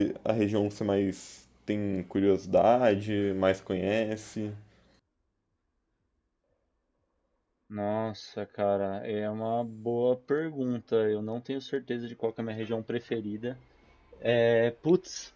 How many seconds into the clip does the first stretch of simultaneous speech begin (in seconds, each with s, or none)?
none